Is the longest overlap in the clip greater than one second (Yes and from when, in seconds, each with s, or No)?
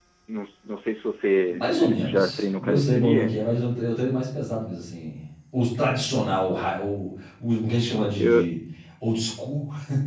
Yes, from 1.5 s